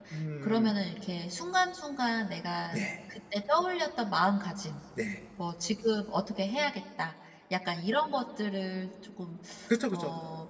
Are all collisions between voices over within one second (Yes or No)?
Yes